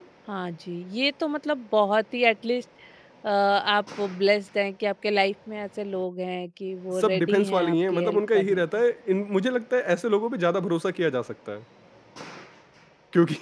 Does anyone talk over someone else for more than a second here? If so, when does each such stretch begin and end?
7.0-8.8

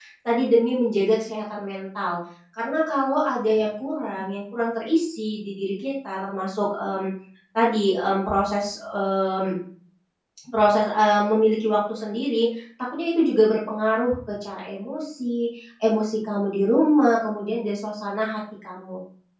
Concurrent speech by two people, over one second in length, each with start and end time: none

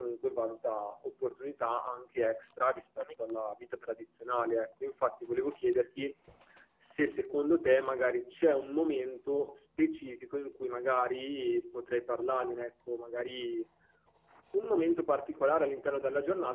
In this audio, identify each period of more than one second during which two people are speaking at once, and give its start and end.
none

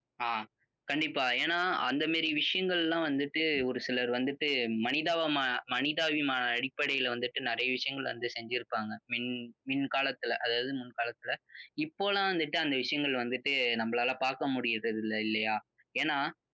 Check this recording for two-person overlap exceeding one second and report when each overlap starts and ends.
none

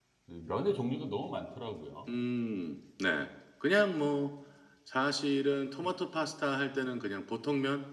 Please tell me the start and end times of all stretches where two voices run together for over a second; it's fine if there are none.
none

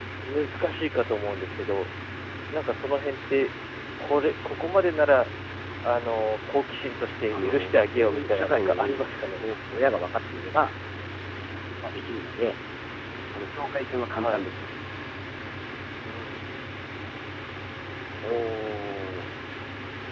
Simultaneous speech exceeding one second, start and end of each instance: 7.3-9.2

